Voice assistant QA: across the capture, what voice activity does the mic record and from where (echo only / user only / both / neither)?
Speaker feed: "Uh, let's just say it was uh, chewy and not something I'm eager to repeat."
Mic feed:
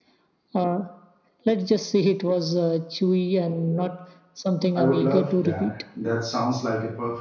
both